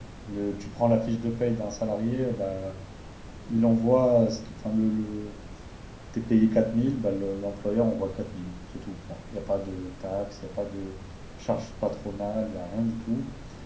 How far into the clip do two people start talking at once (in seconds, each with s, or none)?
none